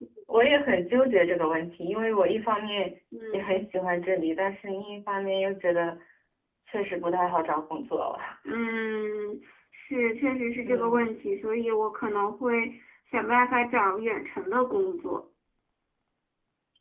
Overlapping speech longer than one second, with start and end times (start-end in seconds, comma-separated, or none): none